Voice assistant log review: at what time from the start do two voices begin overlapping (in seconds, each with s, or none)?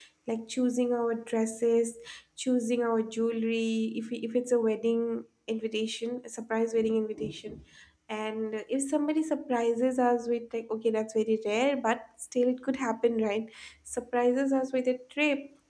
none